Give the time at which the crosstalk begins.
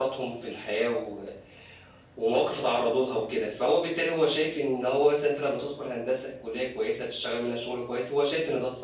none

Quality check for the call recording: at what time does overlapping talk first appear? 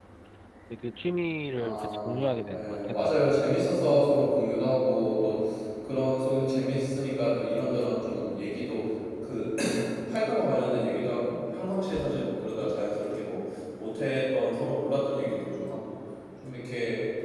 2 s

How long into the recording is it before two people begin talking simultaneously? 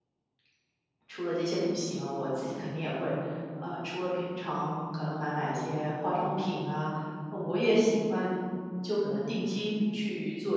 none

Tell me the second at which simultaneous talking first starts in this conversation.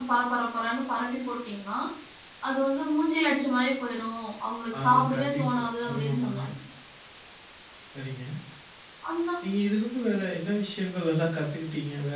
5 s

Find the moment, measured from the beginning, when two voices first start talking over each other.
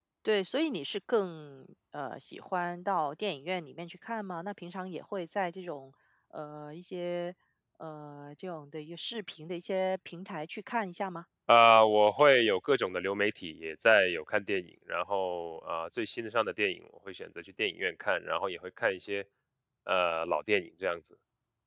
none

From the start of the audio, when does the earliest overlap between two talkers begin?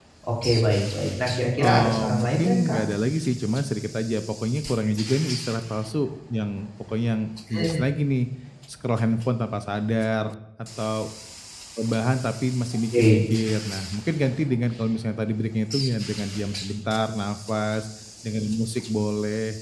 2 s

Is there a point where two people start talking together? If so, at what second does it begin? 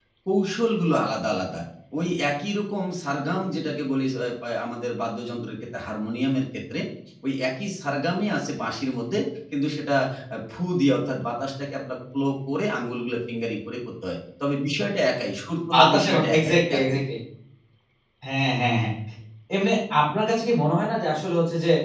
16 s

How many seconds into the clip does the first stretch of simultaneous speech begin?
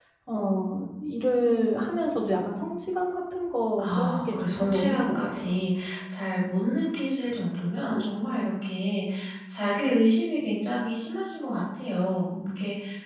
4 s

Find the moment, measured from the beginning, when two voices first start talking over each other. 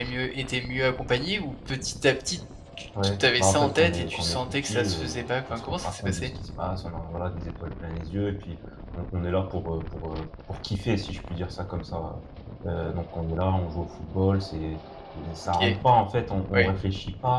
3 s

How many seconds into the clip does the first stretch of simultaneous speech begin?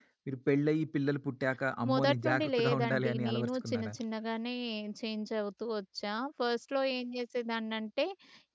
2 s

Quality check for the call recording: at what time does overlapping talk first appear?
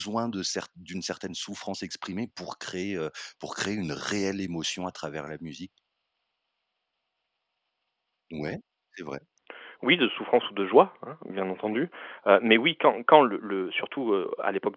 none

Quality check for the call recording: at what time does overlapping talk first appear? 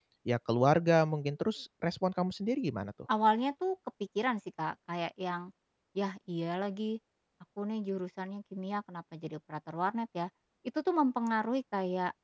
none

